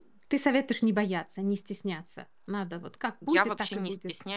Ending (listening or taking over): taking over